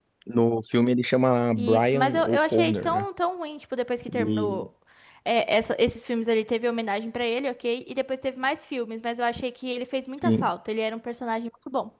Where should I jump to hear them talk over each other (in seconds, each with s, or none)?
1.6 s